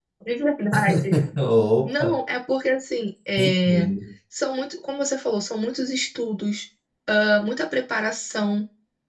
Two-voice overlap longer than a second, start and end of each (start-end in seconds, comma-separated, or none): none